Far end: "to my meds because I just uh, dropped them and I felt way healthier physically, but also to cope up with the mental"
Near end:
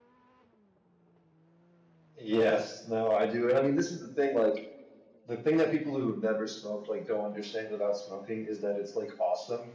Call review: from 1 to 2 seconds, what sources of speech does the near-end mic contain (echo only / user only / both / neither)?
neither